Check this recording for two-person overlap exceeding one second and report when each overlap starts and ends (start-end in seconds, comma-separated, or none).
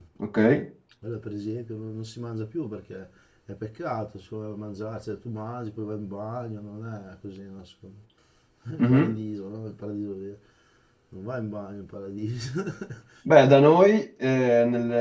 none